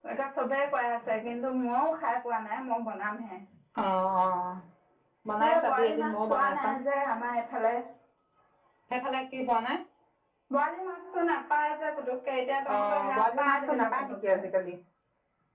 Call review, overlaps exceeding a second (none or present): present